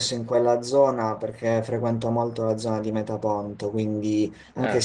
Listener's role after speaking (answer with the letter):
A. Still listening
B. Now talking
A